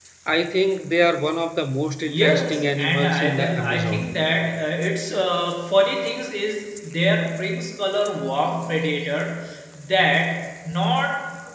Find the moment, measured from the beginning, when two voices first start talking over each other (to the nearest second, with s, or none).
2 s